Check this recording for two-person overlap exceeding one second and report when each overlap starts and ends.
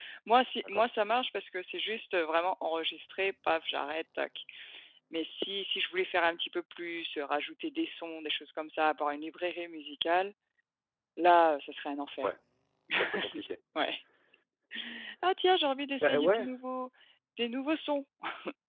none

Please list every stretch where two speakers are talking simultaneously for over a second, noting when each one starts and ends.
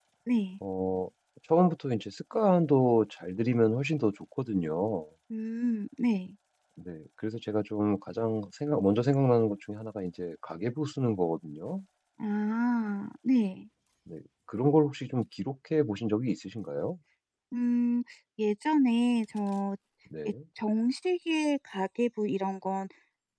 none

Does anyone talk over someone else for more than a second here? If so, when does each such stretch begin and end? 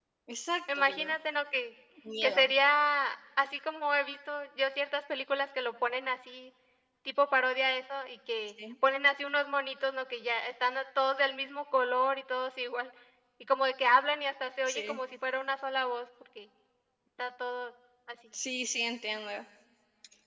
none

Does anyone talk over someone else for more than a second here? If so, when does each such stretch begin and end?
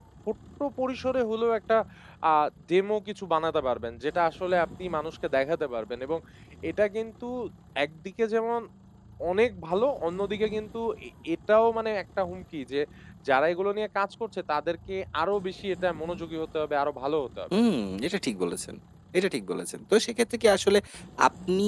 none

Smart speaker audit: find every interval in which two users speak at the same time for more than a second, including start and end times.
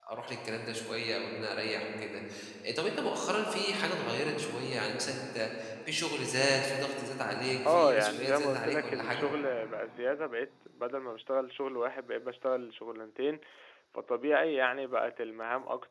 7.6-9.3

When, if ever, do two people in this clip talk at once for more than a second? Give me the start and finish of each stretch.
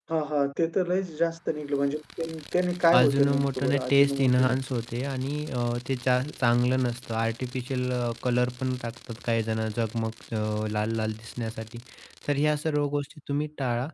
3.0-4.6

